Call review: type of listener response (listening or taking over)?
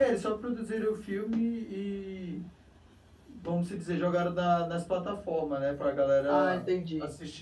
taking over